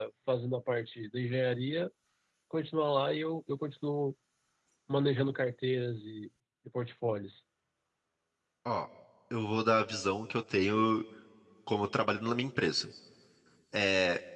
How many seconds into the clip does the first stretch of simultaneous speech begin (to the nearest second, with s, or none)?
none